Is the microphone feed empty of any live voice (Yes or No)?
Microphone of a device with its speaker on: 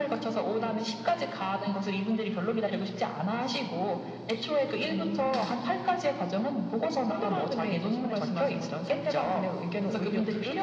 No